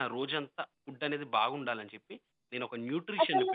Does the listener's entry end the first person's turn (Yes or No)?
No